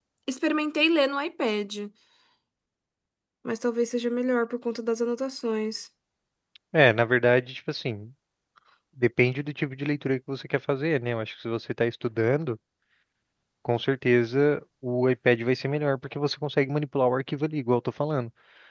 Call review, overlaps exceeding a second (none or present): none